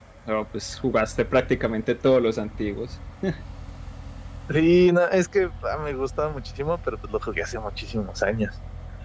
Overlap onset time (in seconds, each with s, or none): none